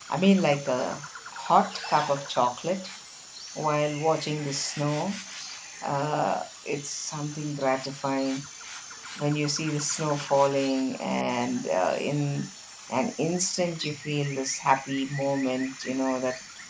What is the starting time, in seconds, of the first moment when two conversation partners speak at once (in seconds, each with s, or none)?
none